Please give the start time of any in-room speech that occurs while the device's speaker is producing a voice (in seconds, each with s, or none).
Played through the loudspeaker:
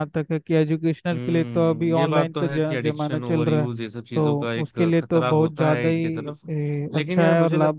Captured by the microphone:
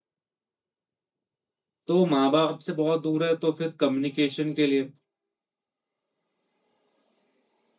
1.9 s